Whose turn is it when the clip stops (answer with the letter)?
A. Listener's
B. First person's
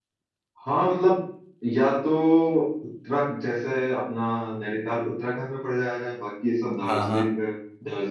B